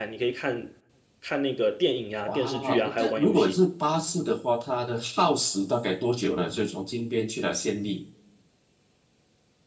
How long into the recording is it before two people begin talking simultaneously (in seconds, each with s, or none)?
2.3 s